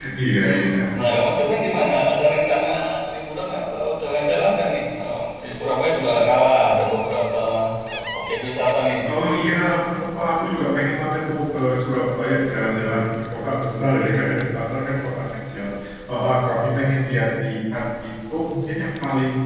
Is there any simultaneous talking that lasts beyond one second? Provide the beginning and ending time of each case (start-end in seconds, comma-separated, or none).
none